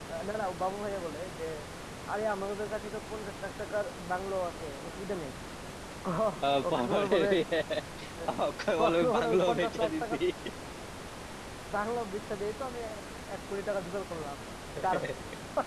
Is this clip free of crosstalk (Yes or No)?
No